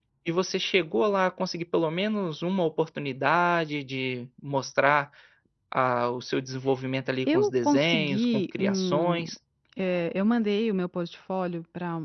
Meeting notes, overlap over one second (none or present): present